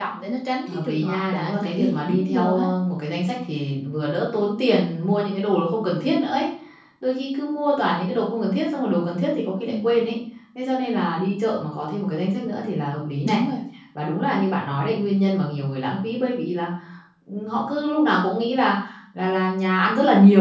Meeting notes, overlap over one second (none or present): present